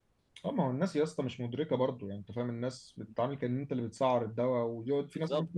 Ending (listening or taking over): listening